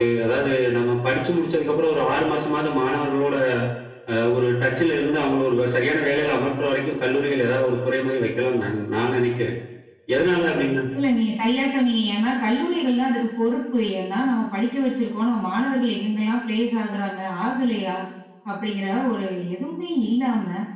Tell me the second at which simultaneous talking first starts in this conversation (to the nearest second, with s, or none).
none